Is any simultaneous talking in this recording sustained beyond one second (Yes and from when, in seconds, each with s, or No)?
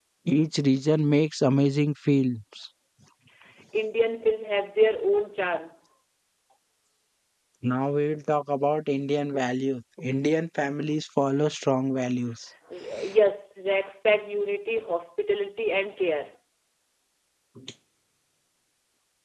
No